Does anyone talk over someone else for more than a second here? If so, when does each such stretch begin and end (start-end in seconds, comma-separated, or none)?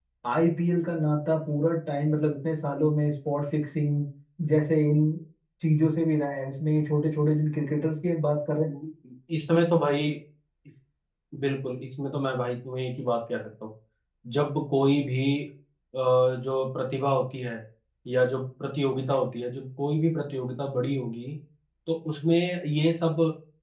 none